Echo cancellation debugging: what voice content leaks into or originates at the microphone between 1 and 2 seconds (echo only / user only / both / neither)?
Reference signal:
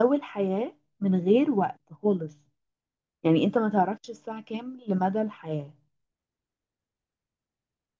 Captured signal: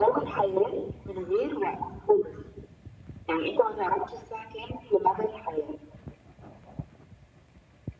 echo only